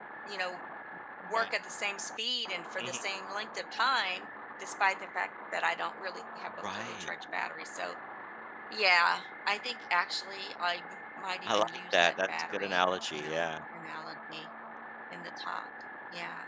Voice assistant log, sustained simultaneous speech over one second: present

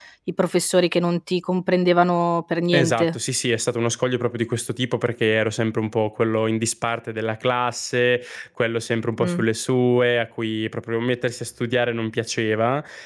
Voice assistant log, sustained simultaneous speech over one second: none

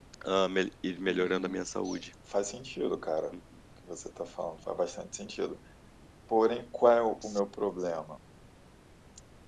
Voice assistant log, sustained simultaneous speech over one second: none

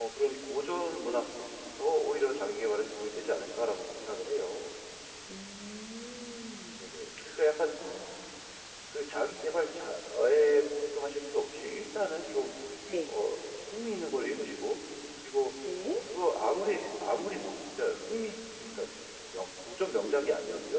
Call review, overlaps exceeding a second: none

